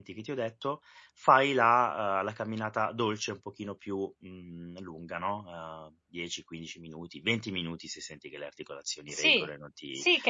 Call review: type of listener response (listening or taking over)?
taking over